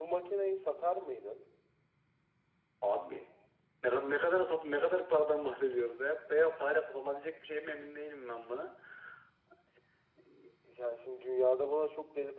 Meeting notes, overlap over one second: none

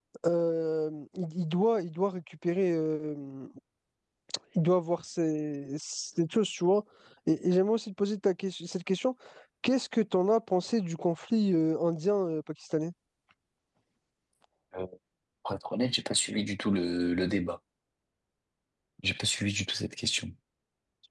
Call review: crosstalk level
none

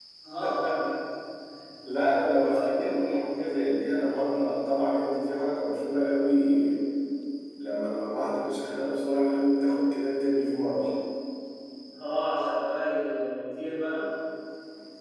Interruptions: present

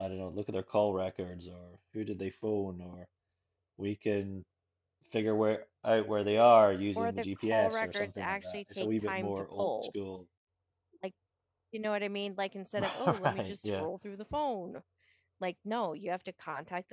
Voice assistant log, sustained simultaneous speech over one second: present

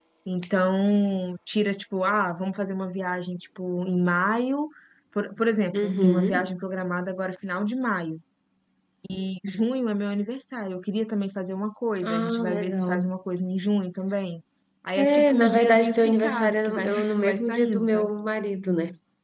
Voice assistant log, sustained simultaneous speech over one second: present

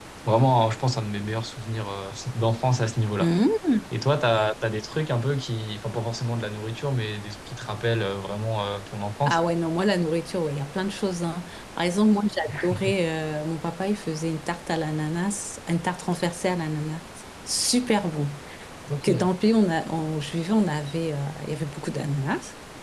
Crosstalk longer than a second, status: none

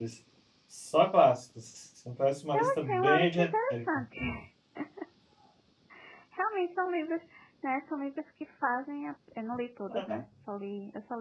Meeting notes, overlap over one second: present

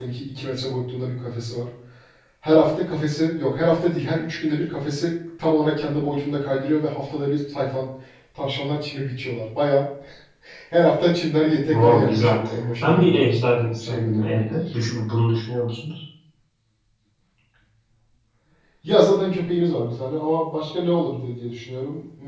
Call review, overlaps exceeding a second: present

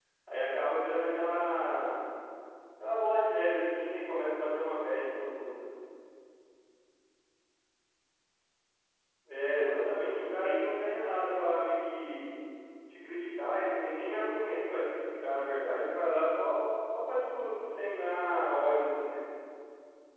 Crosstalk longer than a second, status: present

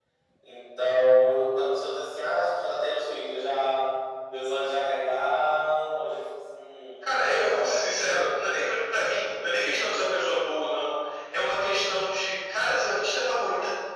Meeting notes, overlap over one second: present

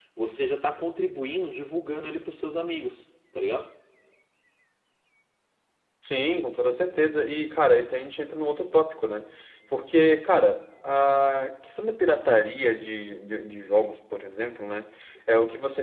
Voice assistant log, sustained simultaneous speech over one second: none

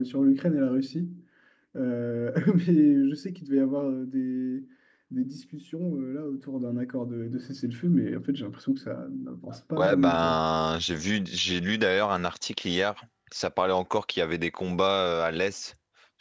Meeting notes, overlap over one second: none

